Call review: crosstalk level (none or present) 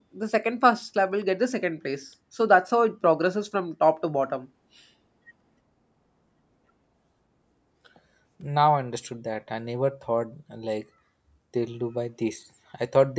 none